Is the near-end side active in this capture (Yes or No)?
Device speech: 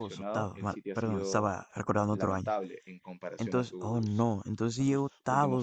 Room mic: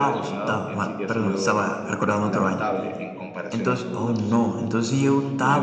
No